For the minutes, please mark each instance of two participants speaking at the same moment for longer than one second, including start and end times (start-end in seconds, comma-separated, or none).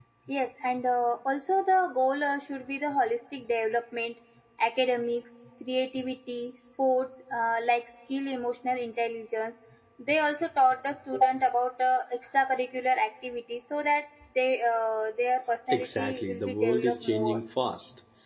15.7-17.4